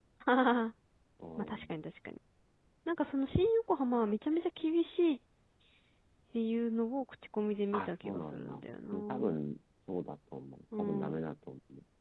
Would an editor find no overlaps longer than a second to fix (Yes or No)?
No